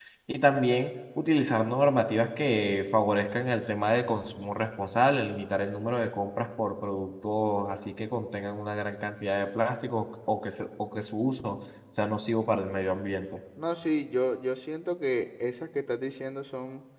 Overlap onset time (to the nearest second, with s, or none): none